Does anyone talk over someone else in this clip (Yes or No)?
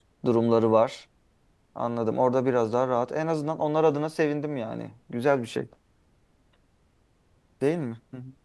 No